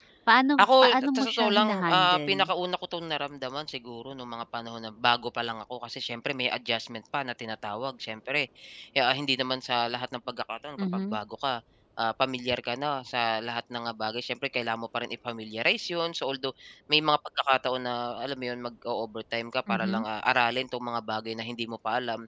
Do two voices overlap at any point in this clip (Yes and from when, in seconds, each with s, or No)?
Yes, from 0.6 s